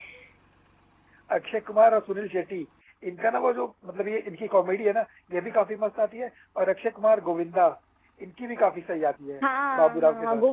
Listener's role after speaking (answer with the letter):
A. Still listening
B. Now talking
B